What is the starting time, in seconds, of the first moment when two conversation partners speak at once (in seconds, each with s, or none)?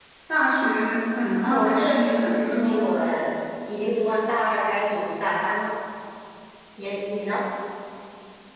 1.4 s